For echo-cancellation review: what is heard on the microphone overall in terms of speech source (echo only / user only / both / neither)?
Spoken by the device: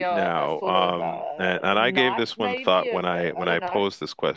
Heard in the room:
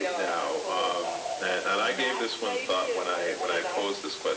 echo only